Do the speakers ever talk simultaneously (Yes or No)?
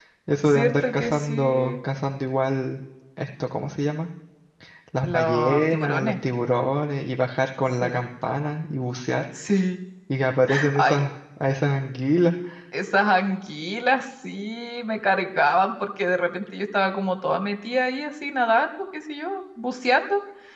Yes